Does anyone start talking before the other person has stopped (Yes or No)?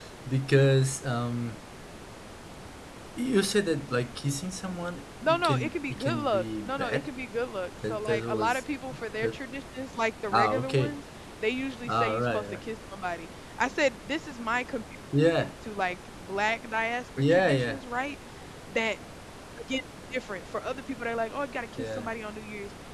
Yes